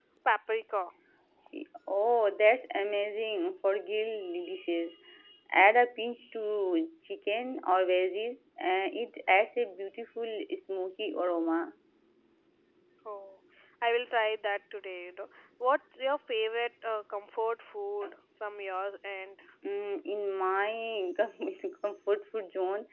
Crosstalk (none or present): none